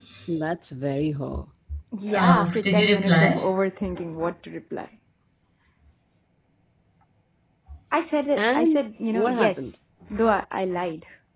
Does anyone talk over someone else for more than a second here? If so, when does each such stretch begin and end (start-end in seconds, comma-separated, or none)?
2.1-3.5, 8.4-9.7